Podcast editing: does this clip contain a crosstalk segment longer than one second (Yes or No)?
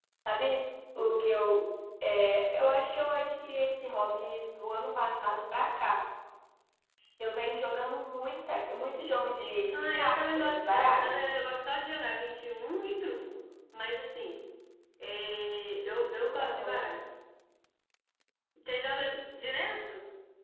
Yes